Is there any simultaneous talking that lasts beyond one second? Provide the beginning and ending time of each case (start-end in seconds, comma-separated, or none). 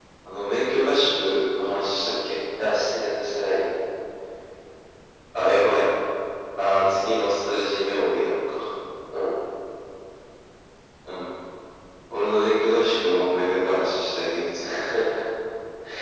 none